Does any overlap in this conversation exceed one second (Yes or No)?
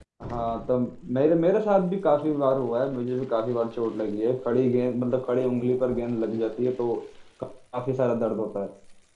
No